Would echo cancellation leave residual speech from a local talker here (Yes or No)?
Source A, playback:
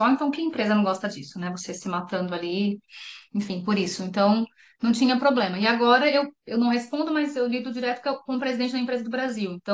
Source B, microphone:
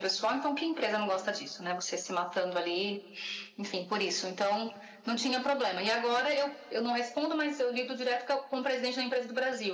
No